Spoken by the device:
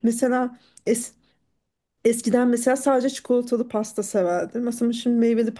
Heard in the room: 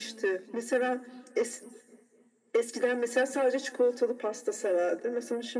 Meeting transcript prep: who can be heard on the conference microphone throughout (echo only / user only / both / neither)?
echo only